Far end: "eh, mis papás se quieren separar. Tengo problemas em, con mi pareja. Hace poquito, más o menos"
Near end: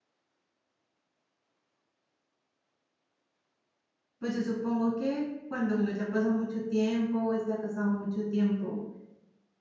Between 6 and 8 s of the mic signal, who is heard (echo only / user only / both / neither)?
user only